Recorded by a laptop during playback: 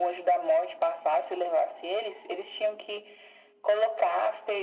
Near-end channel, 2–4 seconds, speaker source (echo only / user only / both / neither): echo only